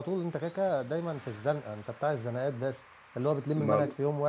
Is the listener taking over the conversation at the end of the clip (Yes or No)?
No